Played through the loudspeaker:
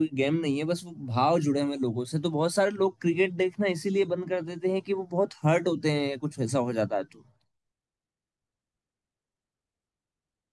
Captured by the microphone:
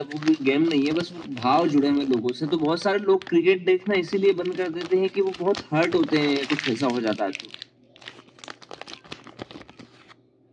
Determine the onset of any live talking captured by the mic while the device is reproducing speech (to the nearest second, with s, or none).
none